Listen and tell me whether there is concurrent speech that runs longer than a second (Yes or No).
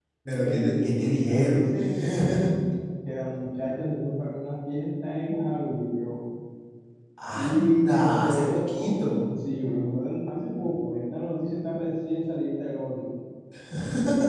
Yes